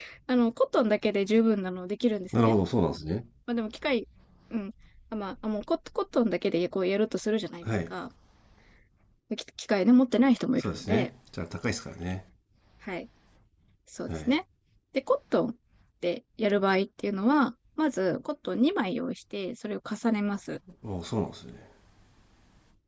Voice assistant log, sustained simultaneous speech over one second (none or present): none